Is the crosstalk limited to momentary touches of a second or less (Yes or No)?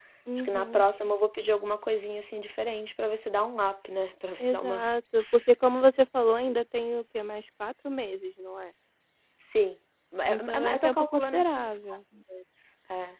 No